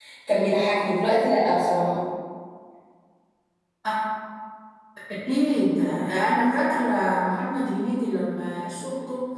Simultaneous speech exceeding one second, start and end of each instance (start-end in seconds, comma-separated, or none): none